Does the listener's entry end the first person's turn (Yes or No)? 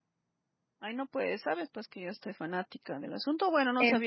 No